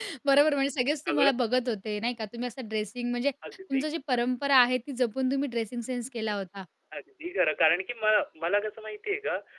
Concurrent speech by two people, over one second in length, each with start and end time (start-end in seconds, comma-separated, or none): none